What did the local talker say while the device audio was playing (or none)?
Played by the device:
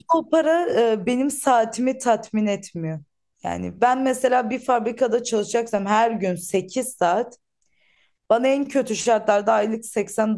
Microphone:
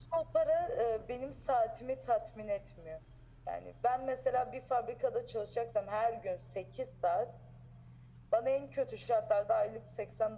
none